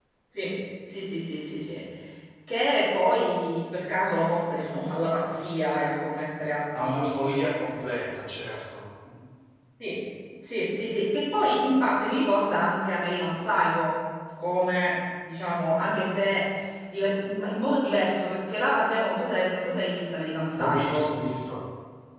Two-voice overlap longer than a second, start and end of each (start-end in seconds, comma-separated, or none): none